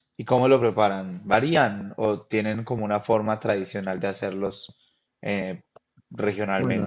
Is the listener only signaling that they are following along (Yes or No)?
No